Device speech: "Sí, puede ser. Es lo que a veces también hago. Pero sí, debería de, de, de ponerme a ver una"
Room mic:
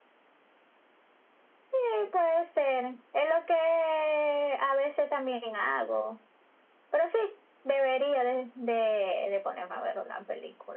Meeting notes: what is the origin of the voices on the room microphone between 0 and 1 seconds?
neither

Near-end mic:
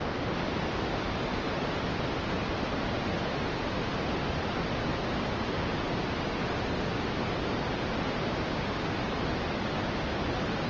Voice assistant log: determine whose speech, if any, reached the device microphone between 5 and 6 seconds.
neither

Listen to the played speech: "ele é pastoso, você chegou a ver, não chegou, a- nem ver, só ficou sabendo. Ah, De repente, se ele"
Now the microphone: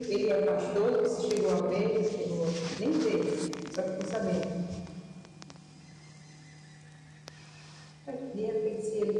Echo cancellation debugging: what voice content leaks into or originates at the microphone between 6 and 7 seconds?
neither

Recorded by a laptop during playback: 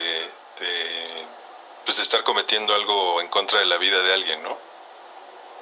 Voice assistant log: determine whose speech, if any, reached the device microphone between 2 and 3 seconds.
echo only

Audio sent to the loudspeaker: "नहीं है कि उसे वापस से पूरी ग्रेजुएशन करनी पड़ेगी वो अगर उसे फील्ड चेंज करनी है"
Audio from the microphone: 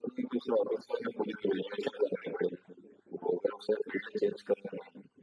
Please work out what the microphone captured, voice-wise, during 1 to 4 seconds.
echo only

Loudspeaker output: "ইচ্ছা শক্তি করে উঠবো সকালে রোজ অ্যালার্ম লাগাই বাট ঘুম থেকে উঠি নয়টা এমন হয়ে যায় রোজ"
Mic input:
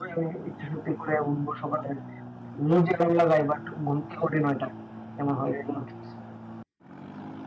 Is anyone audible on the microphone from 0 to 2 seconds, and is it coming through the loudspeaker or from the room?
echo only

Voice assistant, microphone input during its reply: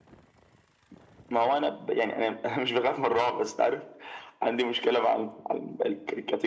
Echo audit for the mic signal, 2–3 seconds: echo only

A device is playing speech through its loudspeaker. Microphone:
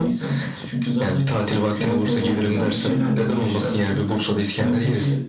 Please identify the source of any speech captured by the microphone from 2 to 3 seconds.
both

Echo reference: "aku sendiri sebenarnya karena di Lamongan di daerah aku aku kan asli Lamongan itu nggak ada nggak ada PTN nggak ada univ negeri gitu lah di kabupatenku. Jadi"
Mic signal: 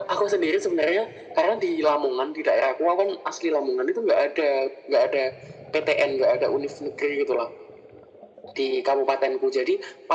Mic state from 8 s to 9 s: echo only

